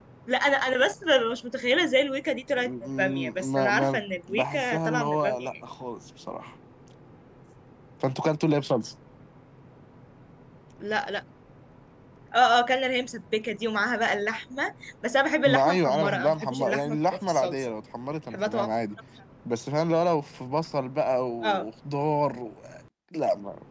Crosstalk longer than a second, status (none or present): present